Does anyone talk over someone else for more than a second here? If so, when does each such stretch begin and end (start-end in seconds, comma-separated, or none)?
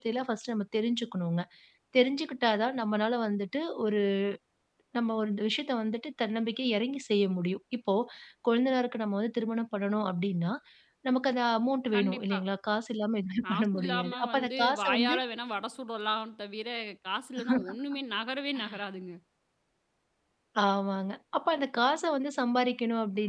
13.4-15.2